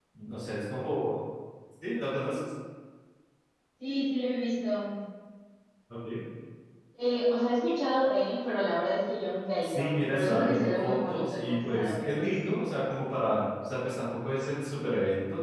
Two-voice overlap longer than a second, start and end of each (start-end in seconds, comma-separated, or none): 9.6-12.6